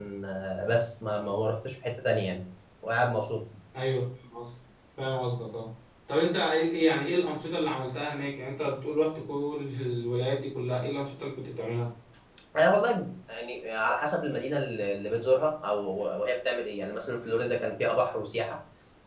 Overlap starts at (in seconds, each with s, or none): none